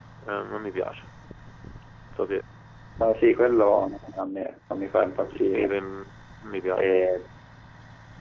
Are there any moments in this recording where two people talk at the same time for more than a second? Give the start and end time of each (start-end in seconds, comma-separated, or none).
none